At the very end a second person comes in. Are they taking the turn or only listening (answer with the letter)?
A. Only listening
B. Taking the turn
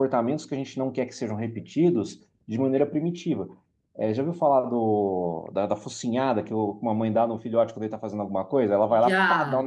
A